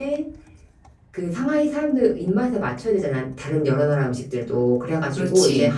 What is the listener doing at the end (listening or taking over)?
listening